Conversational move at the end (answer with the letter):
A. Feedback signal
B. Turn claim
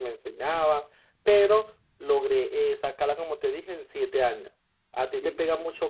A